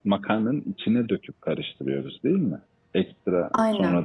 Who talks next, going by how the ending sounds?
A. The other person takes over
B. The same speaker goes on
B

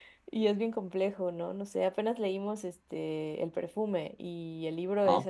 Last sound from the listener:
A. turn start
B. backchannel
B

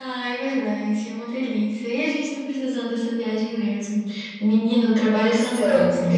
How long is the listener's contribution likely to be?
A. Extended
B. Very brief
B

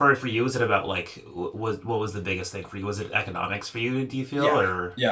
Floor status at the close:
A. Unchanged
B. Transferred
B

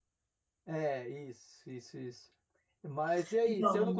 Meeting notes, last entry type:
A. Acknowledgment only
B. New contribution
A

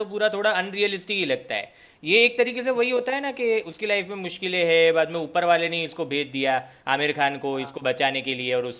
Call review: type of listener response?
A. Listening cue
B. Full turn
A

